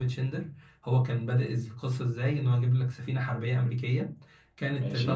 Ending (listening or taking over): listening